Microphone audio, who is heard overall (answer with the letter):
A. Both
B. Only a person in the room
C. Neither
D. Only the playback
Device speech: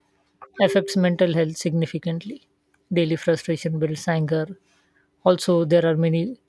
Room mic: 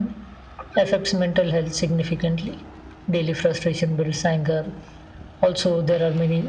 D